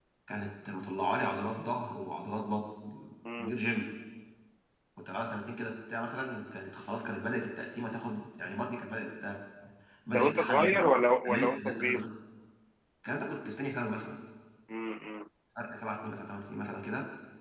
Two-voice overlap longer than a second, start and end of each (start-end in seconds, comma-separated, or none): 10.2-12.1